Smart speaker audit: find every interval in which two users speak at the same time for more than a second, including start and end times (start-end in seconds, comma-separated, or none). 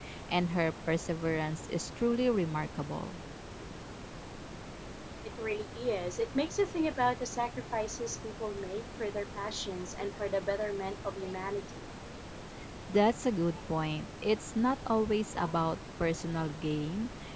none